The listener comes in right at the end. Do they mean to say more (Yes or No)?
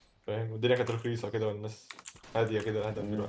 Yes